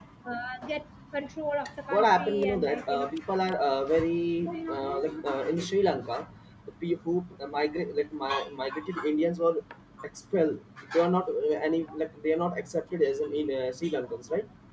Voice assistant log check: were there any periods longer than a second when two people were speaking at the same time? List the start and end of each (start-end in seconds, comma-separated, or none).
1.9-3.1